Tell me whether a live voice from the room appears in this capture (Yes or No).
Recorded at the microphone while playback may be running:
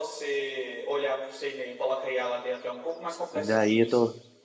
Yes